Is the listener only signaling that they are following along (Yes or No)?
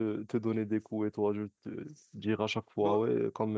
Yes